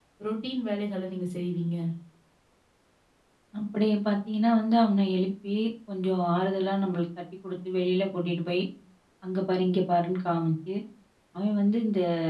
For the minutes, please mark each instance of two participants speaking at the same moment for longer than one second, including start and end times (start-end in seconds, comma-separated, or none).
none